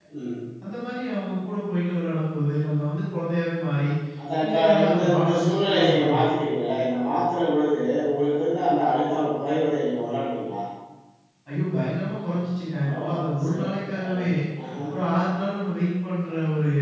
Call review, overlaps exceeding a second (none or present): present